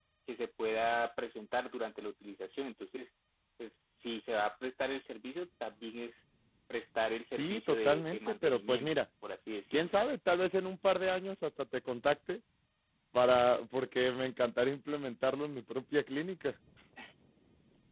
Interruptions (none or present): present